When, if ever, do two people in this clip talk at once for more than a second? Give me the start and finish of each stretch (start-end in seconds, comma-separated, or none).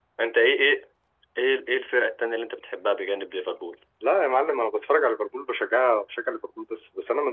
none